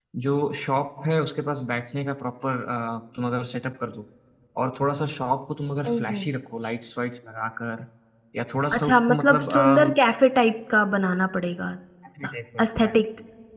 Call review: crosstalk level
present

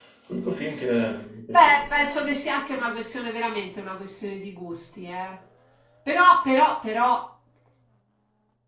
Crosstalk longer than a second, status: none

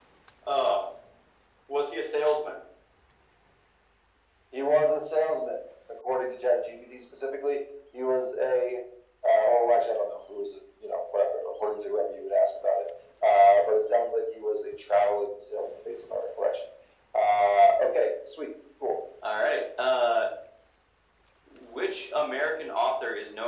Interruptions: none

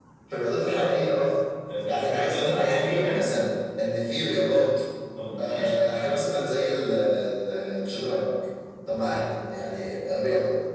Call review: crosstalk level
present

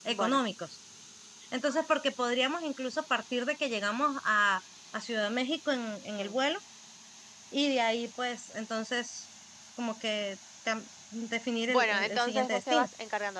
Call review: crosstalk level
present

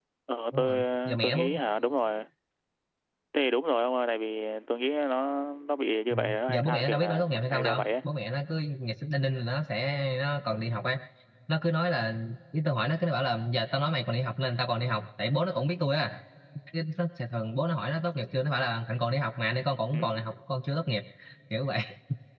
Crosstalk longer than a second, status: present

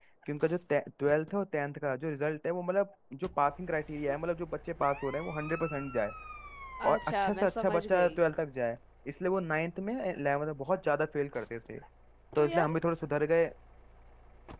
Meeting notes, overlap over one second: present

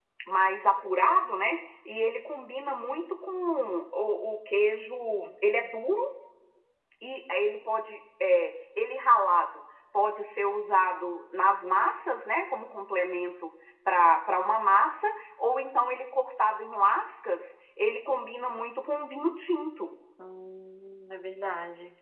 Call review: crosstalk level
none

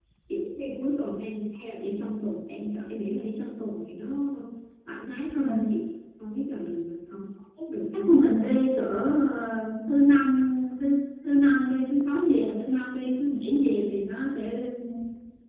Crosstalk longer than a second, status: none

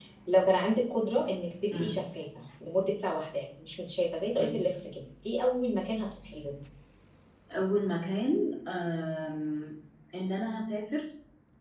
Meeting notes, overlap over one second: none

